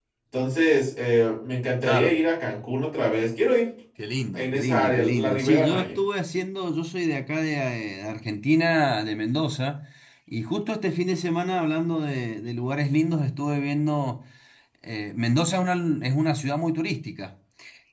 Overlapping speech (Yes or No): Yes